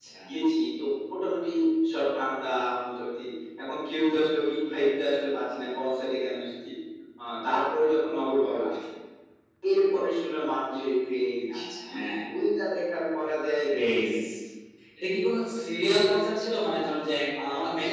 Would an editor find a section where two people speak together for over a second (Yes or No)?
No